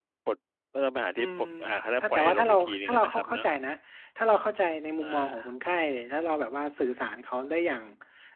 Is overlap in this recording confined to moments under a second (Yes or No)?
No